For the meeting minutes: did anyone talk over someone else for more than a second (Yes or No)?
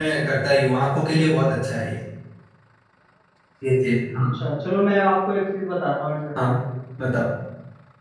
No